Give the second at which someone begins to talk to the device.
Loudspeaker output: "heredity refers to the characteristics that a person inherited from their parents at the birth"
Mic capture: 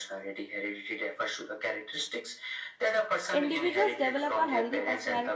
3.3 s

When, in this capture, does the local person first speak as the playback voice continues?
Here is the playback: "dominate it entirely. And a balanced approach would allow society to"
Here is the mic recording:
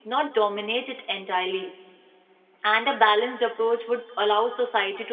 none

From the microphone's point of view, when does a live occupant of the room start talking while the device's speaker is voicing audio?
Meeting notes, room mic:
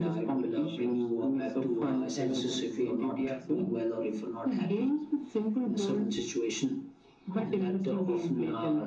none

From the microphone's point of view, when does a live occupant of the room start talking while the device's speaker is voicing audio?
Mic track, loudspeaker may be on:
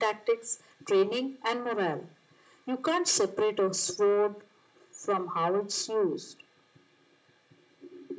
none

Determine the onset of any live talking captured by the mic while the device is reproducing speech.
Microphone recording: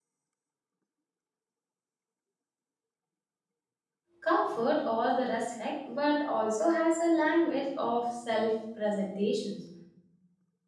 4.2 s

